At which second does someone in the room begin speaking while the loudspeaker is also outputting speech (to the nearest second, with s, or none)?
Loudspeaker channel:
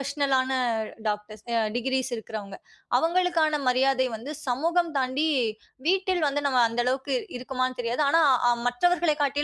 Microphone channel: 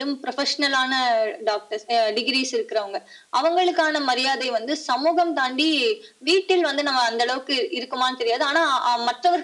none